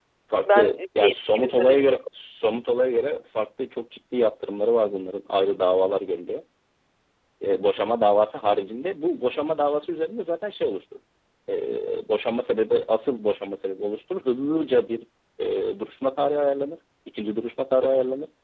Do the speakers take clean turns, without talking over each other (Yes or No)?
No